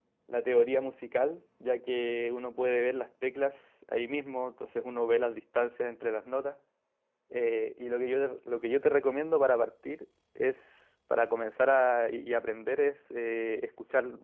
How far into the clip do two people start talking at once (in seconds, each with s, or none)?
none